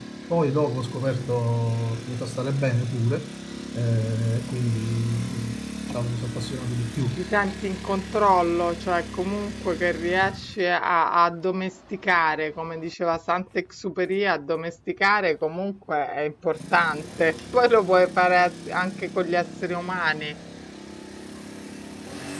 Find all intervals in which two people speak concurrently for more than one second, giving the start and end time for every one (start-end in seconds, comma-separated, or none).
none